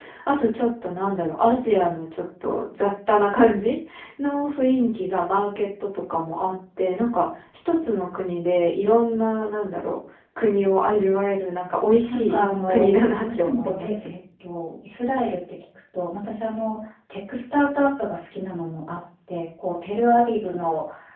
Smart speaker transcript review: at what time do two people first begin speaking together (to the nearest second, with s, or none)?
12 s